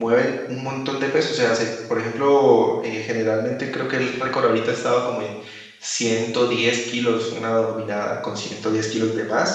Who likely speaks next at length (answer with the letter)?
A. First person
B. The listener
A